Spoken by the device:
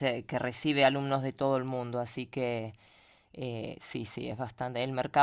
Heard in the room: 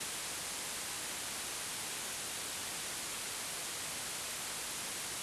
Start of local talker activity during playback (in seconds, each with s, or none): none